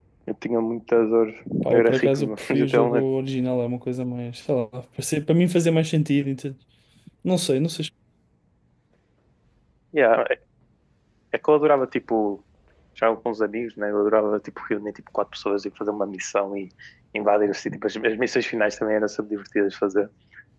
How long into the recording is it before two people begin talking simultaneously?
2 s

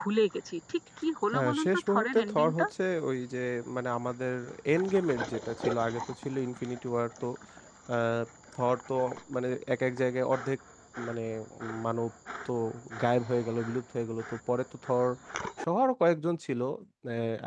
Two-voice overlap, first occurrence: 1 s

